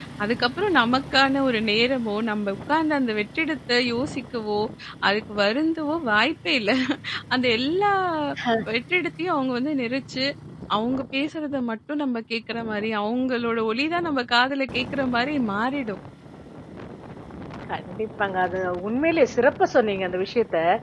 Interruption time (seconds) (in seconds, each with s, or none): none